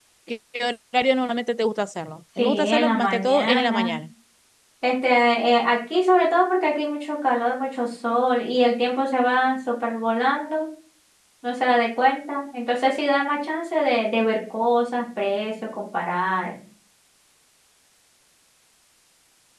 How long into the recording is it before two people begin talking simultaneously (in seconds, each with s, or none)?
2.4 s